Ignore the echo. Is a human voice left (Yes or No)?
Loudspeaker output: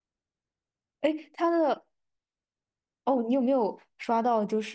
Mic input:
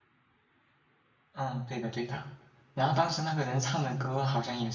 Yes